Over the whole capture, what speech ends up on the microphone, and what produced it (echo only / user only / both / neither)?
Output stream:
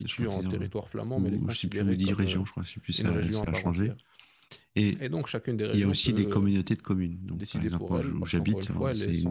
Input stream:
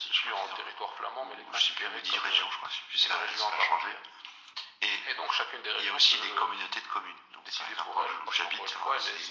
echo only